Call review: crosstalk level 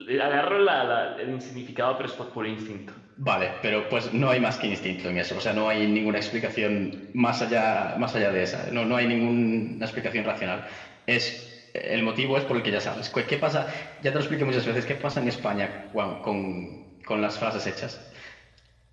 none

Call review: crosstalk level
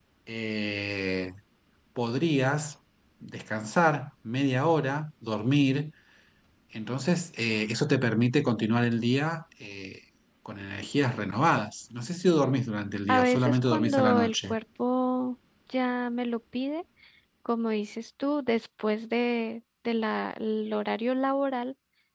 present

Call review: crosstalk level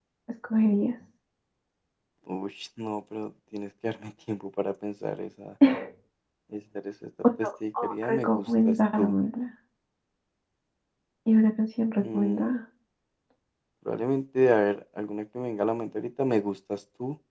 present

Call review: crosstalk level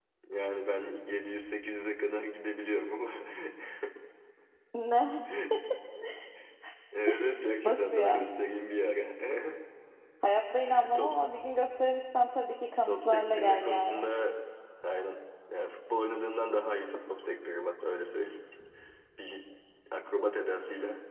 present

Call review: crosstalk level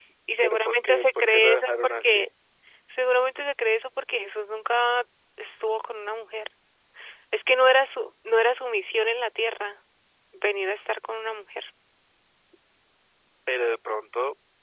present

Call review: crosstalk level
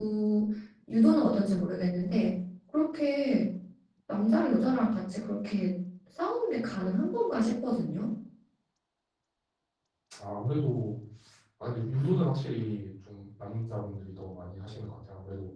none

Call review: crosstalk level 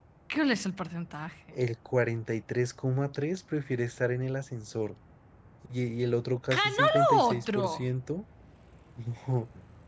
present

